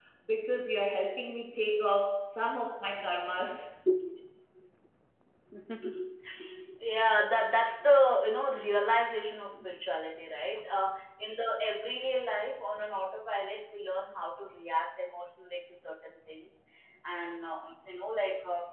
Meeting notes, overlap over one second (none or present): none